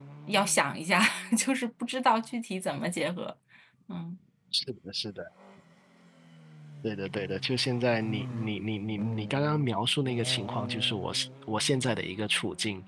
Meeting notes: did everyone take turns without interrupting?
Yes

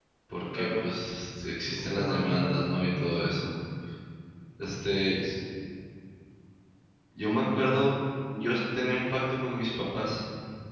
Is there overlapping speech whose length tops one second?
Yes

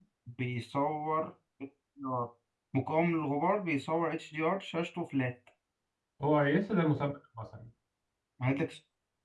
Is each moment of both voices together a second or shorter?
Yes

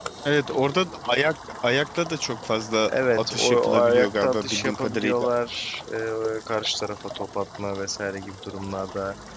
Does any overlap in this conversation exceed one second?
Yes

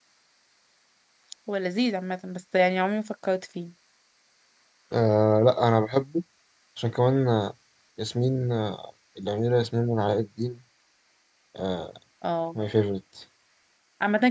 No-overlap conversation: Yes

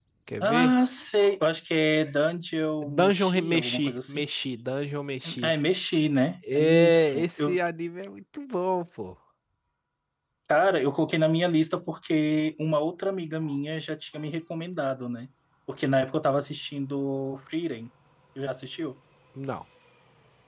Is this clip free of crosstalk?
No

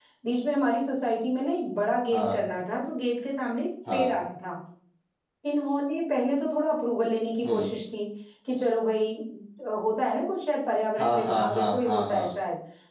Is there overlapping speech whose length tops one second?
Yes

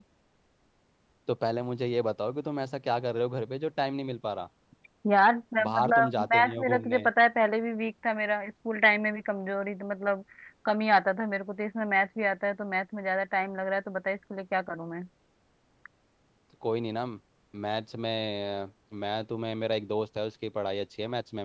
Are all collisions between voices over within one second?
No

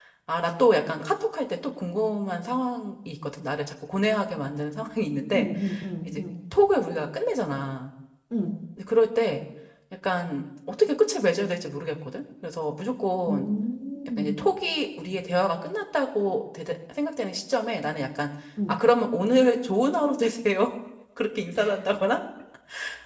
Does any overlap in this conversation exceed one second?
No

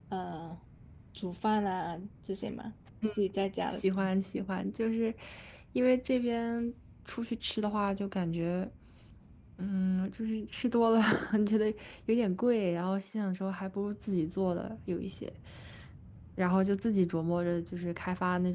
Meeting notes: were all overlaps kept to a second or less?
Yes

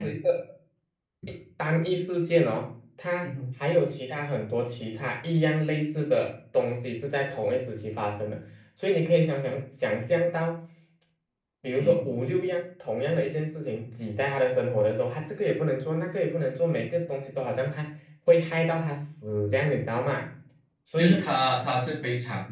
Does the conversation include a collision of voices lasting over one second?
No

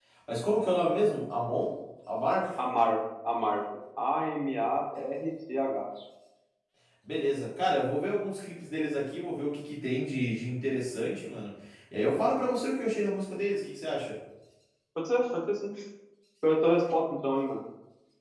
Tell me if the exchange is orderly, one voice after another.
Yes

